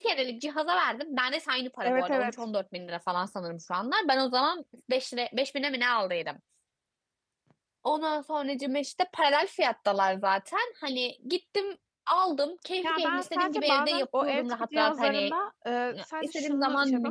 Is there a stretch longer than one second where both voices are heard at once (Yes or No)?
Yes